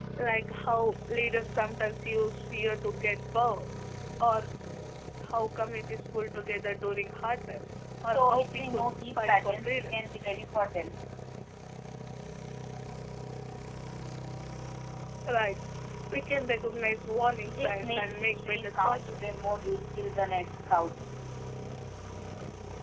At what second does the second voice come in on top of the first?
8.1 s

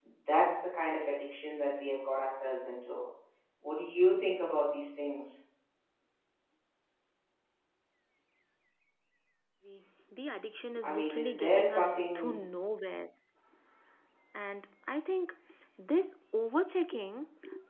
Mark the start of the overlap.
10.8 s

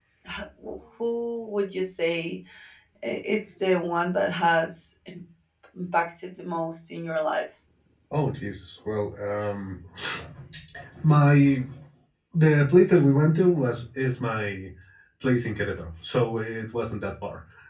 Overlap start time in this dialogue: none

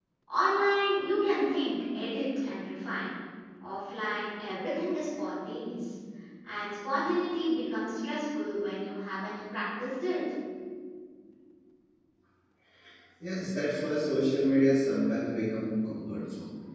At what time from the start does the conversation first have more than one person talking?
none

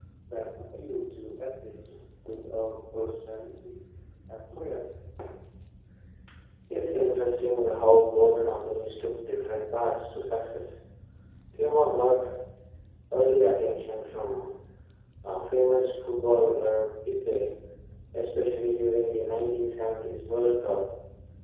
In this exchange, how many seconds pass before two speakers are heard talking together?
none

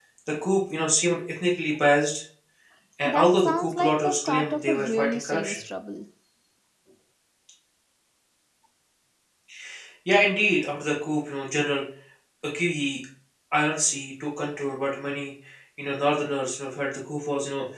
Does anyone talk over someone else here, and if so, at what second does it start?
3.0 s

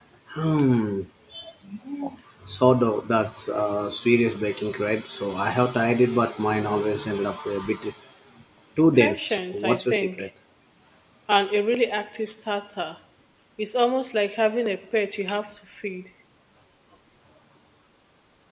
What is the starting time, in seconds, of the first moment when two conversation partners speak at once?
8.9 s

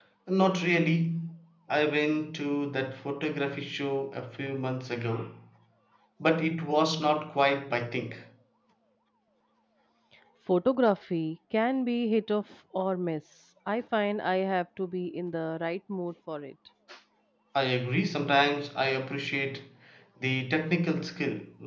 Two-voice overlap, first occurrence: none

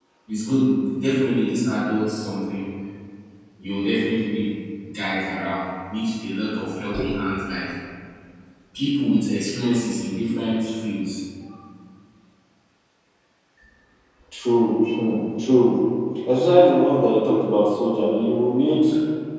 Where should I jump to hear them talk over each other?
none

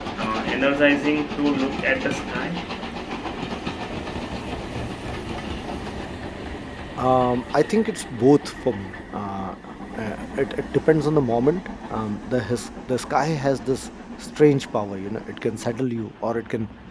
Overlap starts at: none

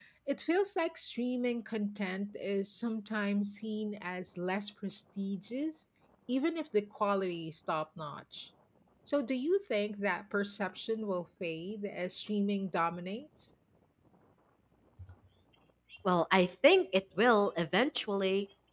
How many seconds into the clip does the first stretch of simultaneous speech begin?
none

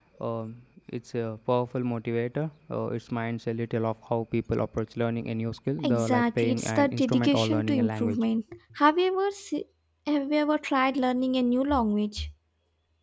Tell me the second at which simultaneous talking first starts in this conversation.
5.8 s

